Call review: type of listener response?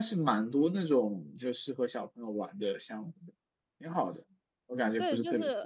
taking over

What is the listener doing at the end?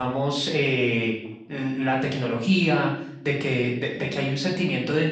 listening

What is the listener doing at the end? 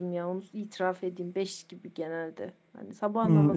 taking over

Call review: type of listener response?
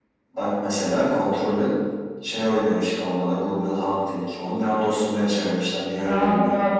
taking over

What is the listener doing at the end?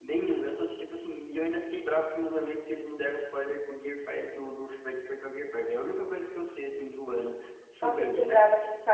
taking over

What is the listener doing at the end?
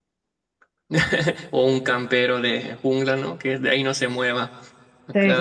taking over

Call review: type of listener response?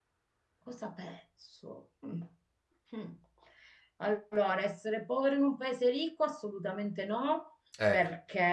listening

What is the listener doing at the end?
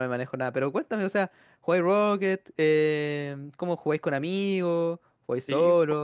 taking over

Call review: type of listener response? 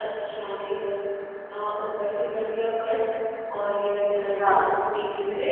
listening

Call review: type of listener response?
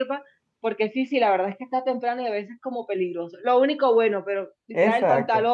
listening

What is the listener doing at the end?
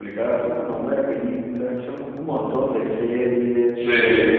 listening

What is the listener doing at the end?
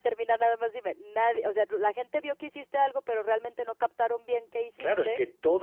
taking over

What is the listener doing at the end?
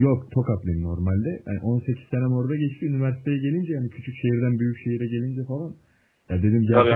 listening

